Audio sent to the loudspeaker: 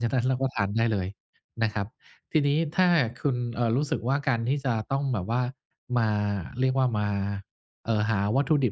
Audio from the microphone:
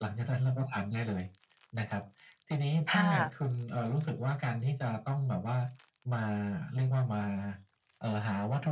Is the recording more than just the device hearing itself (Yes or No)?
Yes